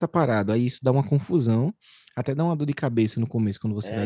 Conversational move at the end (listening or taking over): taking over